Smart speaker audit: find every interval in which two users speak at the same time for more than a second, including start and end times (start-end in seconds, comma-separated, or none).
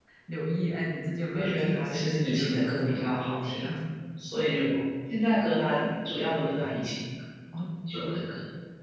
1.3-3.8